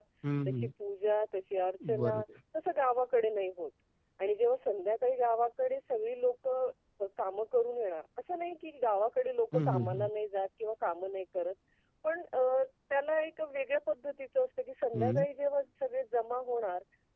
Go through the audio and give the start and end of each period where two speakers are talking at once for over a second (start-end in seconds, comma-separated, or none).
none